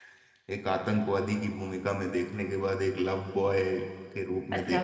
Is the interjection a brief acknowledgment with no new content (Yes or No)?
No